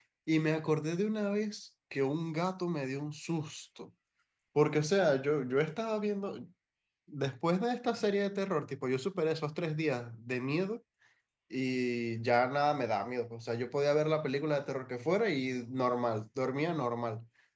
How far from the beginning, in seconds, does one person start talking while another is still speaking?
none

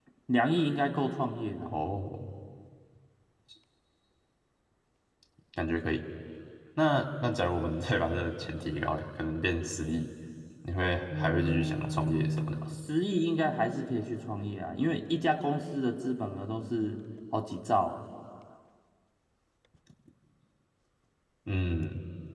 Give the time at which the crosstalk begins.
11.2 s

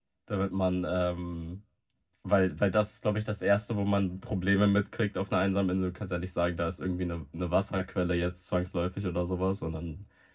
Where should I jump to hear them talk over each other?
none

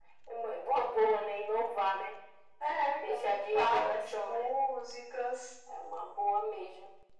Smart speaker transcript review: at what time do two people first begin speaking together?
3.0 s

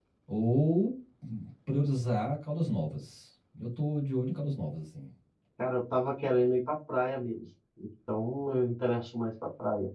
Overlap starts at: none

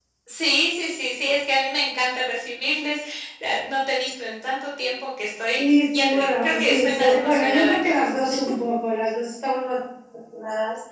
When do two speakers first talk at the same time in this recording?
5.5 s

